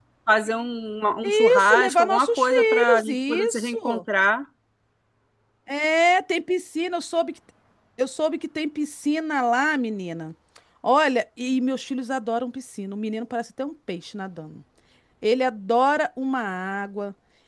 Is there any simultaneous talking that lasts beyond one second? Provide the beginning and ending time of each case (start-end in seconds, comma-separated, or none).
1.3-4.0